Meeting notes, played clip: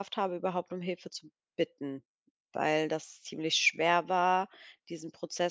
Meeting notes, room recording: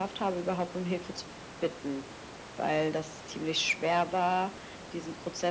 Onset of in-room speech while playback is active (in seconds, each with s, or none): none